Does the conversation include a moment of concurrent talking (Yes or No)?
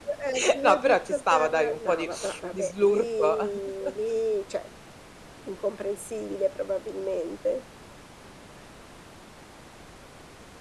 Yes